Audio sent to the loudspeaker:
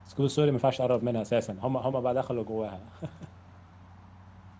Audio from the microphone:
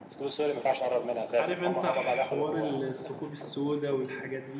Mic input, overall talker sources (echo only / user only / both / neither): both